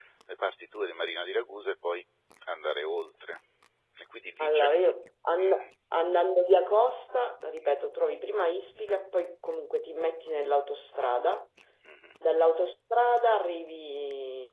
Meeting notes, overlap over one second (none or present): none